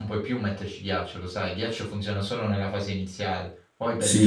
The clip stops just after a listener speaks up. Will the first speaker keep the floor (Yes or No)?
No